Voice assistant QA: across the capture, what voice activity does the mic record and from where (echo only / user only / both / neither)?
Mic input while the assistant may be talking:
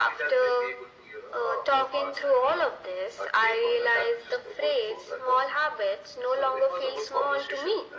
echo only